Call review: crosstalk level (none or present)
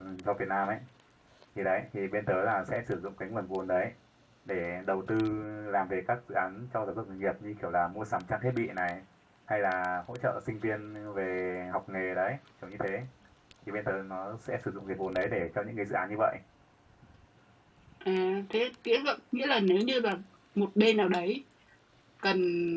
none